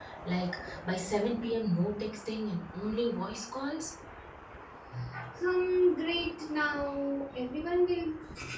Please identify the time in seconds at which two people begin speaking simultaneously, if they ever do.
none

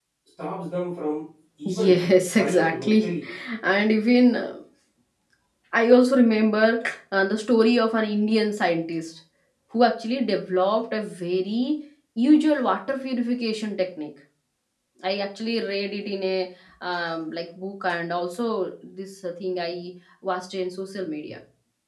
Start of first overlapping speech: 1.6 s

